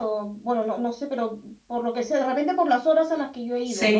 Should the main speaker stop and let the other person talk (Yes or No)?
Yes